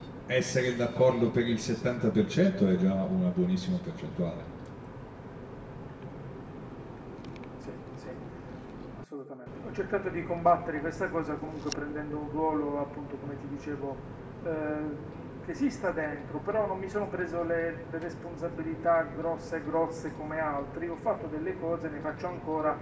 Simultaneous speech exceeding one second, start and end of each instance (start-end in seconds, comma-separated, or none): none